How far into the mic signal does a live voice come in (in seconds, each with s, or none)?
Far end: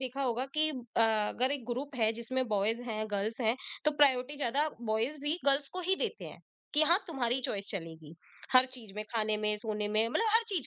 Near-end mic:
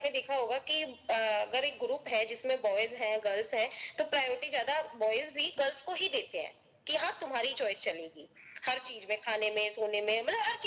none